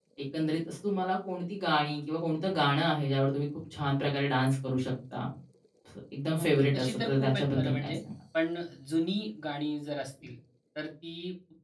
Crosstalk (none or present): present